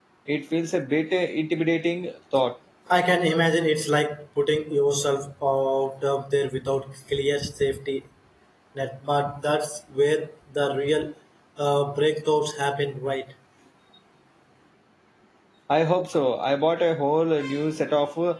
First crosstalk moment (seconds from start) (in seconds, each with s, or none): none